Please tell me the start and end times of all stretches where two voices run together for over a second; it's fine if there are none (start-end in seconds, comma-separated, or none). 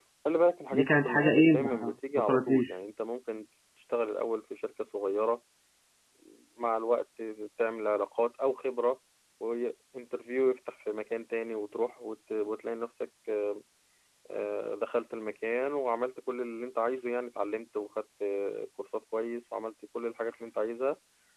0.7-2.8